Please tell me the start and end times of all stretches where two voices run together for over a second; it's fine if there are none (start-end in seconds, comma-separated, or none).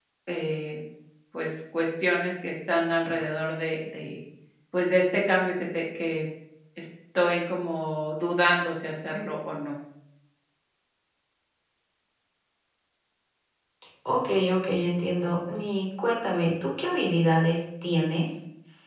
none